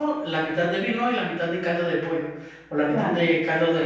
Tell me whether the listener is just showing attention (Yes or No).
Yes